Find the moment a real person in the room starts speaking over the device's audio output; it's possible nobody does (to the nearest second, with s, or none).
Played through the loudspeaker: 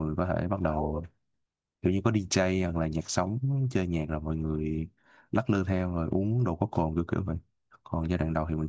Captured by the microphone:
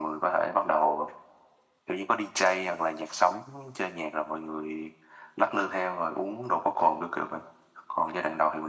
none